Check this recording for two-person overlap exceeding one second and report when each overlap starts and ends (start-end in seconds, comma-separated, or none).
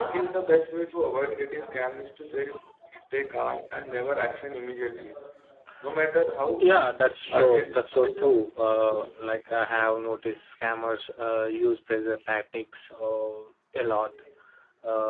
7.3-8.6